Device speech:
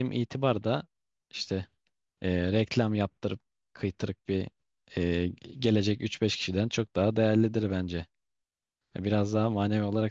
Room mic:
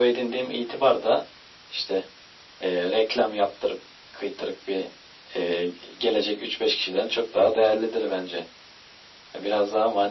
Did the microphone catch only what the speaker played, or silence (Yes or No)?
Yes